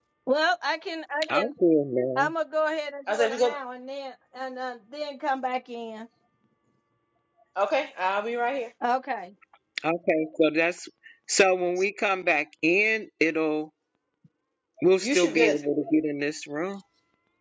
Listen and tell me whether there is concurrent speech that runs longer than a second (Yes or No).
No